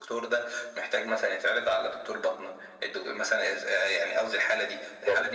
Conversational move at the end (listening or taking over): listening